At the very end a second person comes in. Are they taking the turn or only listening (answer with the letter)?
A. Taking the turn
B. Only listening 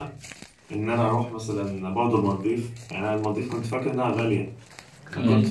B